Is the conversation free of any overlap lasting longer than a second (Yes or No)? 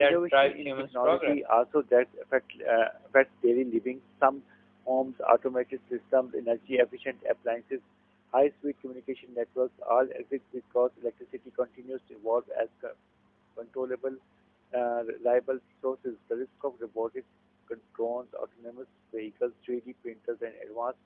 No